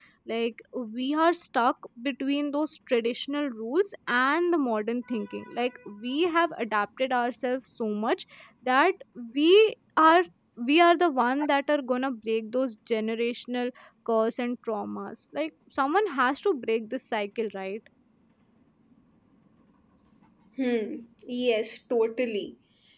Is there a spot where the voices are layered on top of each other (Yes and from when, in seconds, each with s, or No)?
No